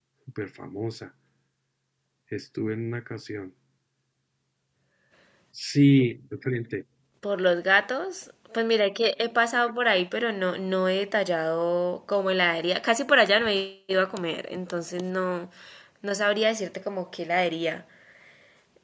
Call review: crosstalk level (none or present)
none